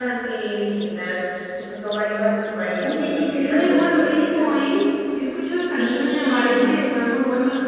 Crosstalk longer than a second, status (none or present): present